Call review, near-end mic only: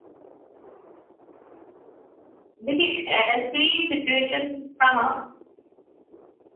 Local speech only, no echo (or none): देखिए ऐसी सिचुएशन हाँ हाँ